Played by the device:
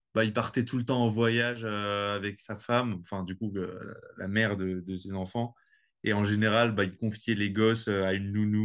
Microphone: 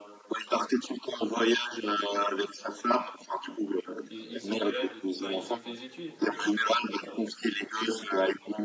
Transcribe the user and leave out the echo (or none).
Ils, ils ont quel âge? Enfin, ils ont fait des études et tout, ou pas?